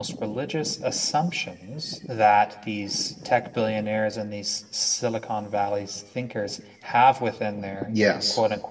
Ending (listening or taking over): listening